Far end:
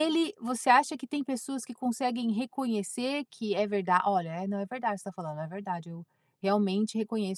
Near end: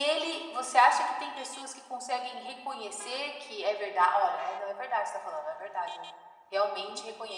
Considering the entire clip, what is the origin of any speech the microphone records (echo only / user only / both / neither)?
echo only